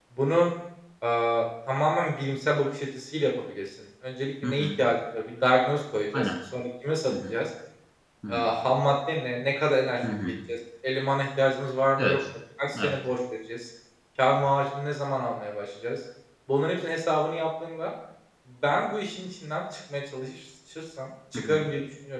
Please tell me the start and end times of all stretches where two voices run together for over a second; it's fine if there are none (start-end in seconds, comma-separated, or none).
none